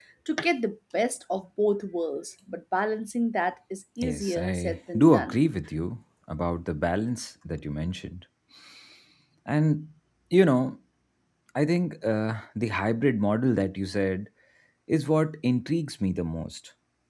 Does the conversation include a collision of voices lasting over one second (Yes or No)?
Yes